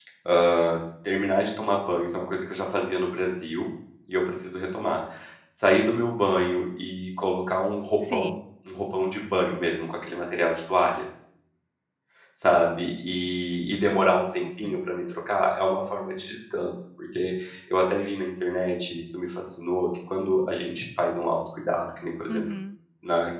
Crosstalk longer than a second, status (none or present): none